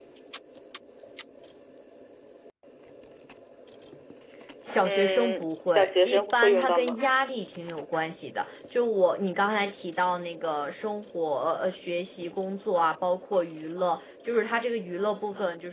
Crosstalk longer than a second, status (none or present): present